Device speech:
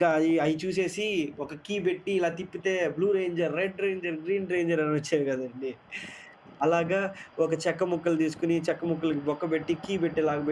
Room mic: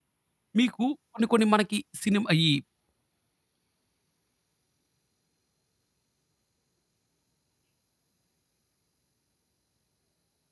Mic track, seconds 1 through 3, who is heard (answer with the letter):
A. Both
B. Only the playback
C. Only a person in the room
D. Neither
C